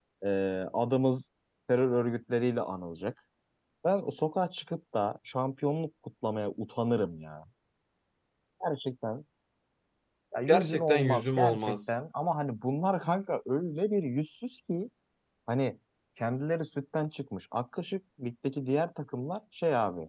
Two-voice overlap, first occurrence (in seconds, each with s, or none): 10.5 s